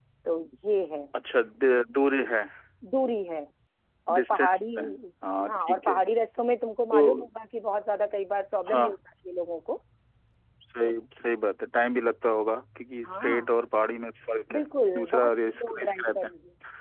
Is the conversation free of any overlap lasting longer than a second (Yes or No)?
No